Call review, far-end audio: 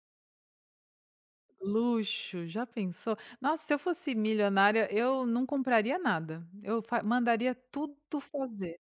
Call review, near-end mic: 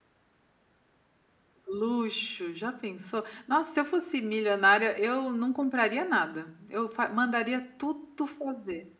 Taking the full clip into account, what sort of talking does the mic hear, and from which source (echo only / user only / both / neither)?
echo only